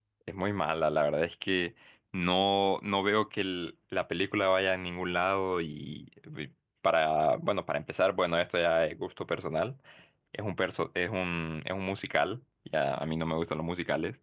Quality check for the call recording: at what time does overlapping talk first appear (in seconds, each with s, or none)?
none